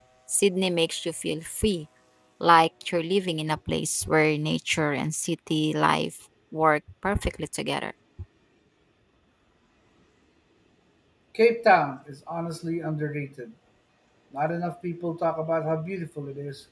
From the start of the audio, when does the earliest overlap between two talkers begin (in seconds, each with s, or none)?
none